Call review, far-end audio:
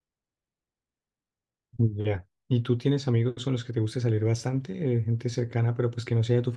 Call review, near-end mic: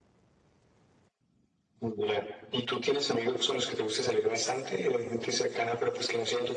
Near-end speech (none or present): none